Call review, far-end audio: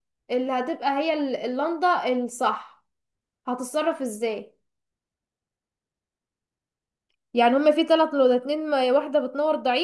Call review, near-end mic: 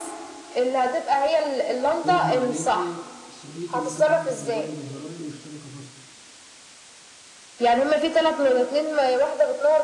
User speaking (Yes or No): Yes